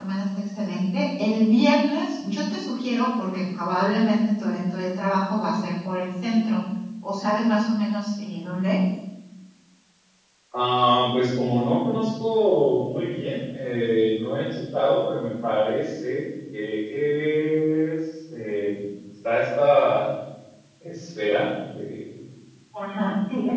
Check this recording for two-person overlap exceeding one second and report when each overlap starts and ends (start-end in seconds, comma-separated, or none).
none